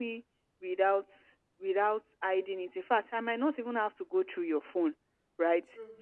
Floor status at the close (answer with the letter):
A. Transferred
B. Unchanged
B